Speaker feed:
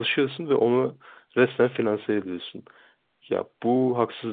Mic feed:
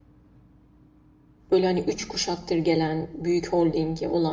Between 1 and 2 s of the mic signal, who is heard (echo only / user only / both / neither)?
user only